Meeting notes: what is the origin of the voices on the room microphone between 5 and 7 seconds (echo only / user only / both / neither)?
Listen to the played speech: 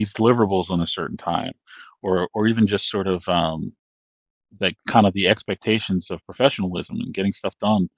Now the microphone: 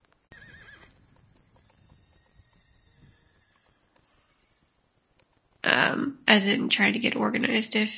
user only